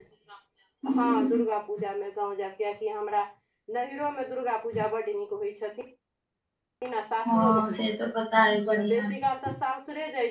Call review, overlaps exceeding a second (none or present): none